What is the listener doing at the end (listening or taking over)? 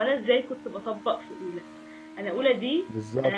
listening